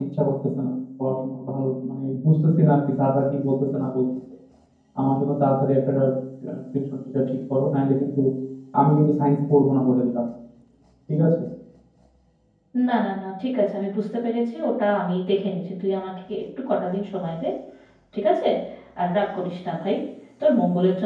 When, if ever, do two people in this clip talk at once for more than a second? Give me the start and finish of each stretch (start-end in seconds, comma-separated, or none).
none